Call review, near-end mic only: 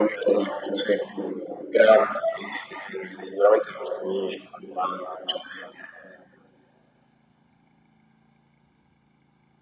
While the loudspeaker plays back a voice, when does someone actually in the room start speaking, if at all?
none

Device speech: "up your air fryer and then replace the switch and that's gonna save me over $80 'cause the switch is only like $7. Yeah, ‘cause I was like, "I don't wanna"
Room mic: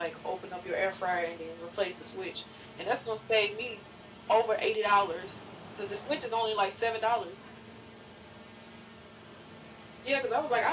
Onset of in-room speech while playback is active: none

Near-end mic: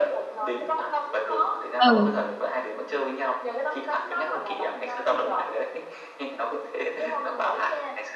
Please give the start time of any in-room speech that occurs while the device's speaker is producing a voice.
1.8 s

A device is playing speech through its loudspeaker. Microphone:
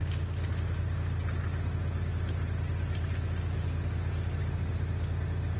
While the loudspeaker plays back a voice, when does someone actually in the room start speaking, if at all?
none

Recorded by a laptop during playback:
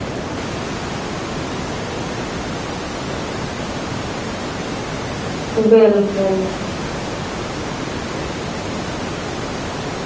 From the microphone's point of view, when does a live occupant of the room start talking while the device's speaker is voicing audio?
5.6 s

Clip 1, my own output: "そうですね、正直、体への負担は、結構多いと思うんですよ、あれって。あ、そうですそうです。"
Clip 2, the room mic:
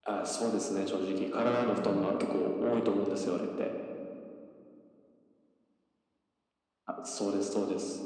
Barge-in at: 1.6 s

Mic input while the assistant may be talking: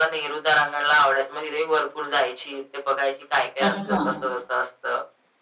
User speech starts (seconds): 3.6 s

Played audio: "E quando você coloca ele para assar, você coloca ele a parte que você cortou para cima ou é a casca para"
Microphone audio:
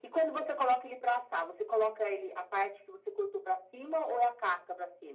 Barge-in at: none

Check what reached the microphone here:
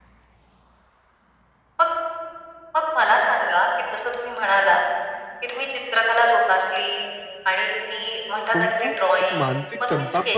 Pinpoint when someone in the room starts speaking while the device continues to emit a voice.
8.5 s

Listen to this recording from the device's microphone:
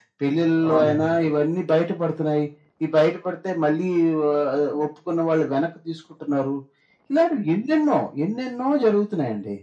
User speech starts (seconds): 0.7 s

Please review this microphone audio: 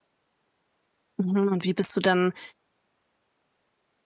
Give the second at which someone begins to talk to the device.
1.2 s

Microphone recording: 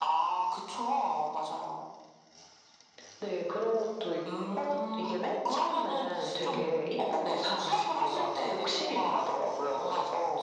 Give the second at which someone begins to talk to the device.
6.3 s

